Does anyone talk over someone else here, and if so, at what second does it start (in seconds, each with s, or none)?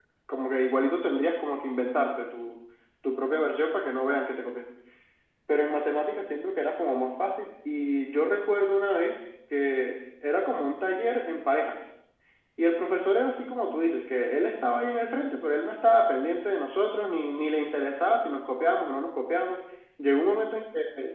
none